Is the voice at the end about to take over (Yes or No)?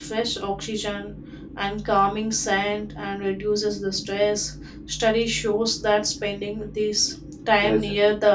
No